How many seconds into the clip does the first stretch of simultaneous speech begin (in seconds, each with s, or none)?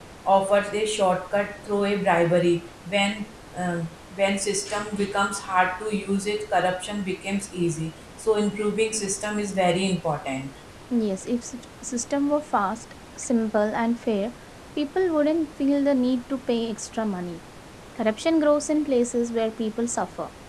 none